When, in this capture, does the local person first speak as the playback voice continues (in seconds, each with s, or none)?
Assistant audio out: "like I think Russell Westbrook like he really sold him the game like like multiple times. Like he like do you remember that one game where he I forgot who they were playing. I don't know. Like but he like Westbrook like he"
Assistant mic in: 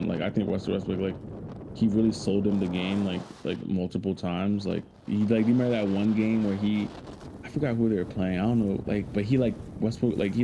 none